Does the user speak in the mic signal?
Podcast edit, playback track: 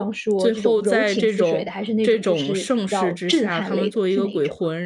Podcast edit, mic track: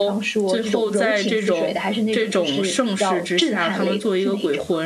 No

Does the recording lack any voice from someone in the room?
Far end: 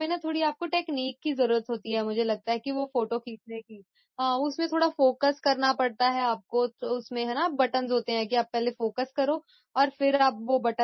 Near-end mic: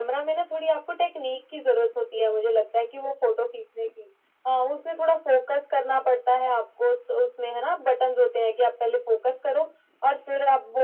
Yes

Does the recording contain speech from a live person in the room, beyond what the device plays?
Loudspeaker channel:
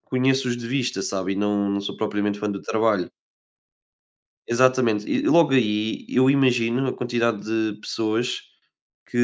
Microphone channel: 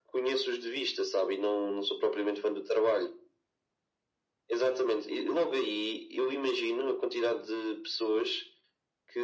No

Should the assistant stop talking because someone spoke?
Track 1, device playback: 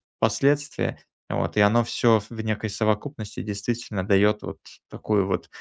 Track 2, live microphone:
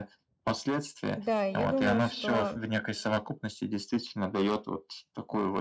Yes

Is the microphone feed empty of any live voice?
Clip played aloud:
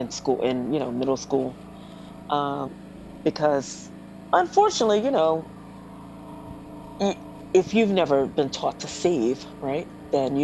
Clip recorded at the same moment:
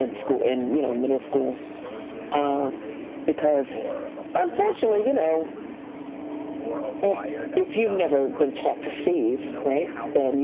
No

